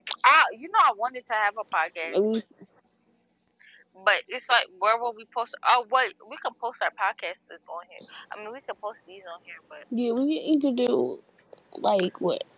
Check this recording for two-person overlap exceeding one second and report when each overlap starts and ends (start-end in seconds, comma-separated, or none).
none